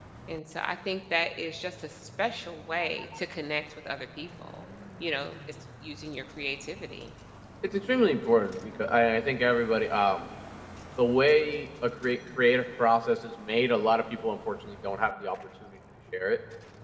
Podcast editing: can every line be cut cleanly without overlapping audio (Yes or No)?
Yes